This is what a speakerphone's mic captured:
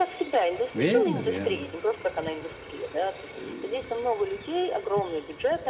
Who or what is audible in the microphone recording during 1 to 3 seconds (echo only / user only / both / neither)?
both